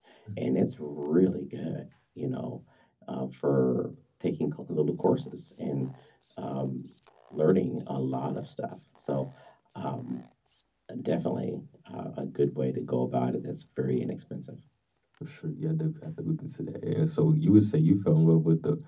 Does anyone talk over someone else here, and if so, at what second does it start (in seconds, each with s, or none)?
none